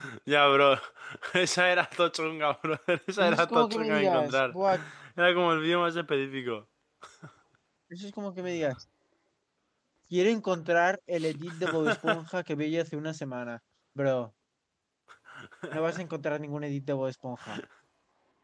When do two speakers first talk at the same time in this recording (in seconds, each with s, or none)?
3.2 s